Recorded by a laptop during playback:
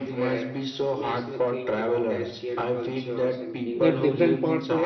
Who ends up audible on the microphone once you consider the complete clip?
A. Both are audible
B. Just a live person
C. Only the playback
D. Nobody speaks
A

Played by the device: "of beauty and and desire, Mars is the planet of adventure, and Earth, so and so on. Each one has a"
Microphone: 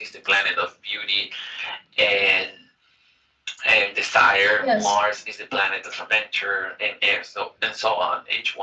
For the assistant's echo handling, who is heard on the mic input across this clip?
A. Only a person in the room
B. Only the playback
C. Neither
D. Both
D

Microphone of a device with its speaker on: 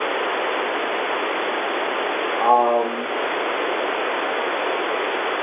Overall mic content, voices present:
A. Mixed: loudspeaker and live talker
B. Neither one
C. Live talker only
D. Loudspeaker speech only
C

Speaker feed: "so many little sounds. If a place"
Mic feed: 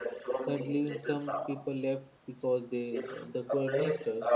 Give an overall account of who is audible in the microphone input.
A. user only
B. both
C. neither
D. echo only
B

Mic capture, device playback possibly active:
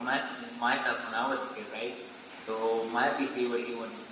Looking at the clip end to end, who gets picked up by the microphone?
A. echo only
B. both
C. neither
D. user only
A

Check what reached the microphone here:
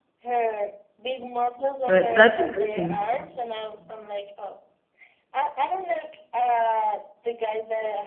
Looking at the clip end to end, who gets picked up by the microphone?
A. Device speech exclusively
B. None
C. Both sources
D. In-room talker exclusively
C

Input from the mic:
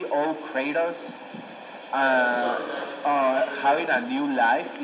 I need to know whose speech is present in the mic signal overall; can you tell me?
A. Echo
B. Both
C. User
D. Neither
B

